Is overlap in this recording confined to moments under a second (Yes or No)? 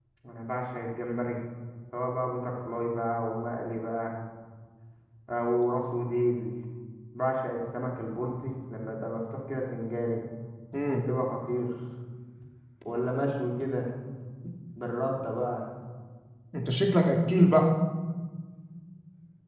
Yes